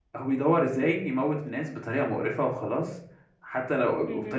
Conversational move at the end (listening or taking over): listening